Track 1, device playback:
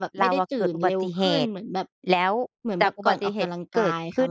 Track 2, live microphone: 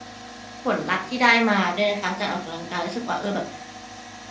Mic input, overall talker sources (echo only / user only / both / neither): user only